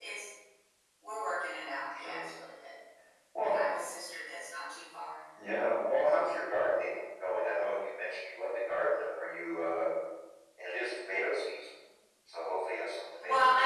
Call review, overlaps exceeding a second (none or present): none